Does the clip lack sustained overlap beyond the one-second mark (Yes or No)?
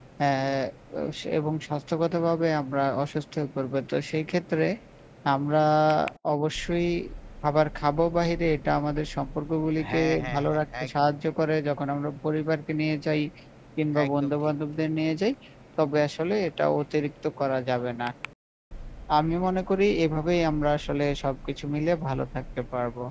No